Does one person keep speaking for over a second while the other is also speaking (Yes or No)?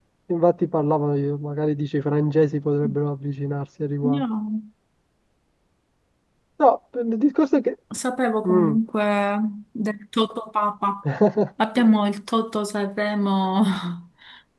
No